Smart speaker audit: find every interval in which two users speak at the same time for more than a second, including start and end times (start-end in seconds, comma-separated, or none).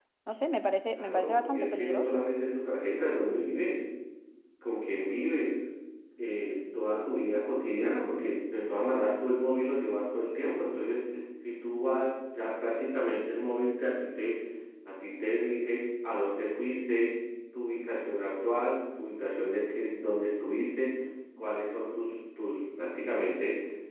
0.9-2.2